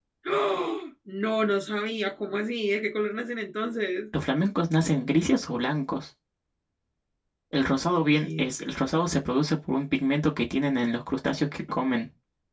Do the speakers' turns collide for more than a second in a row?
No

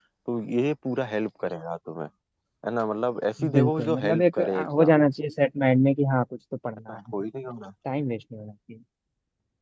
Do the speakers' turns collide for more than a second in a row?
Yes, from 3.5 s

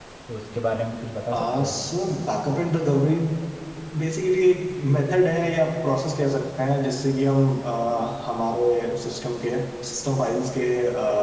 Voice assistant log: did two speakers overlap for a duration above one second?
No

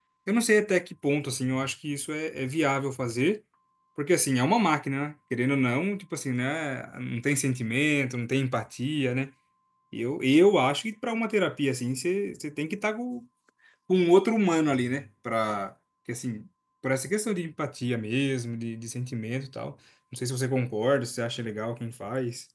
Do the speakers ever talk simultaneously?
No

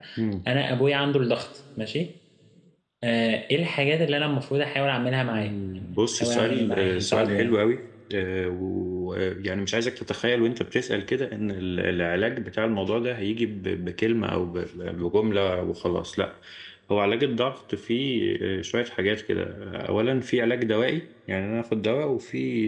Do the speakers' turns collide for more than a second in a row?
Yes, from 5.3 s

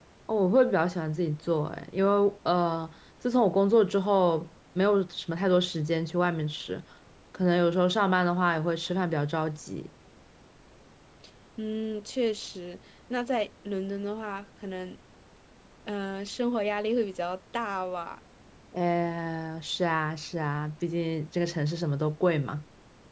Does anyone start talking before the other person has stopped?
No

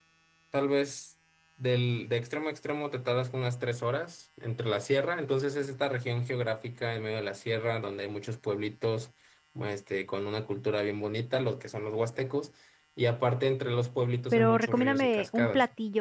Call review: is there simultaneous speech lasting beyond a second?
Yes, from 14.3 s

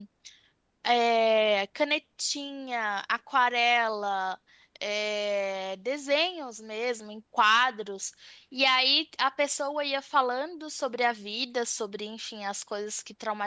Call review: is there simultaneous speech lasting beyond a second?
No

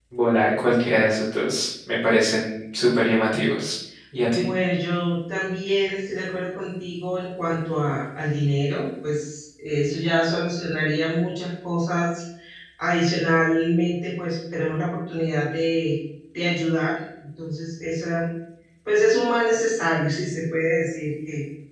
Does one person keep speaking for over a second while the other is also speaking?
No

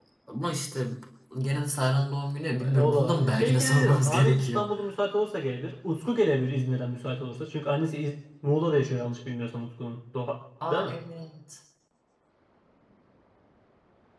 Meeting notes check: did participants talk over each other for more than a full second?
Yes, from 2.8 s

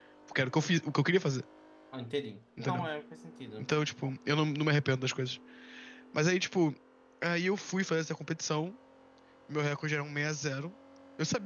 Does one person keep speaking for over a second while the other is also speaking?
No

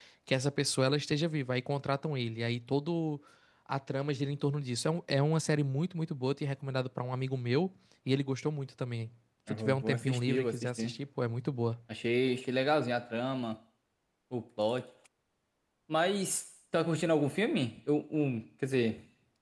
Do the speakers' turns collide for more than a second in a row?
Yes, from 9.5 s

